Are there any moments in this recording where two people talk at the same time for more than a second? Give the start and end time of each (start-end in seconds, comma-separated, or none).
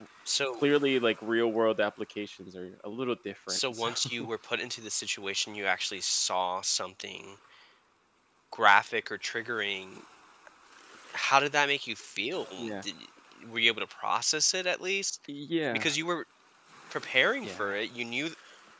none